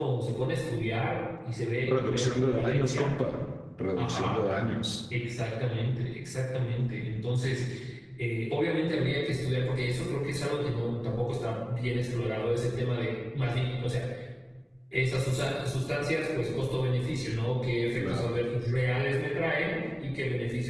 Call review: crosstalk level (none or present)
present